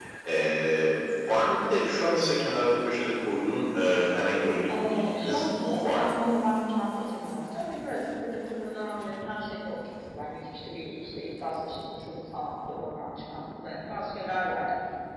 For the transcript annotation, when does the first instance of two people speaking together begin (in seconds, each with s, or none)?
4.7 s